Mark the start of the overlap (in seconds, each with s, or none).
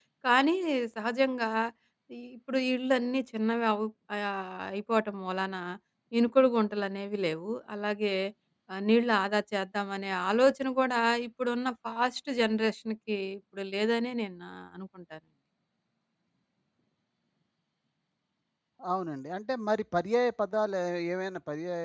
none